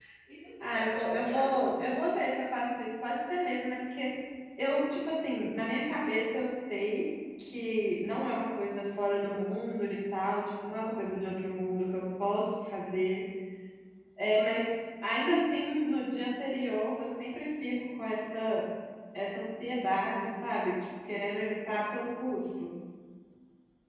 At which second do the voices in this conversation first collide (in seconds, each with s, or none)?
0.6 s